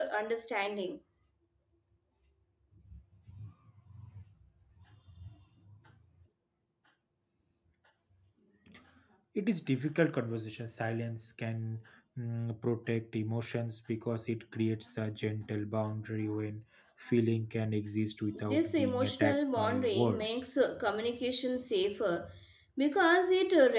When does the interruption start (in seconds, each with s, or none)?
18.3 s